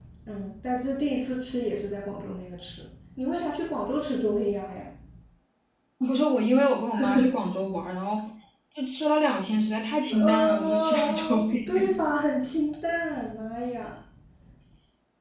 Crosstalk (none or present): present